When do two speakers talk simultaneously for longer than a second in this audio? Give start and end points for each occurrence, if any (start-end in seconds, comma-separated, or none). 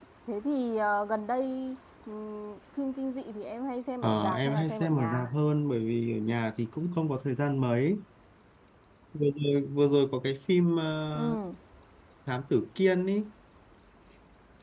4.0-5.3